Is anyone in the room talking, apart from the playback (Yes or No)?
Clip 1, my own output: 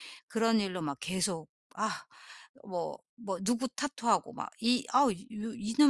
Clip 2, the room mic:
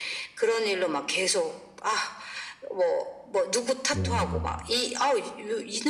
Yes